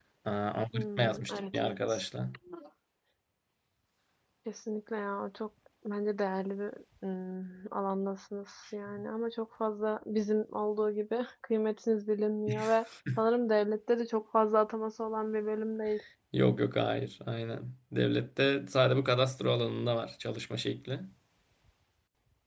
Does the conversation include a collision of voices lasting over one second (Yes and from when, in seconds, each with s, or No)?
Yes, from 0.7 s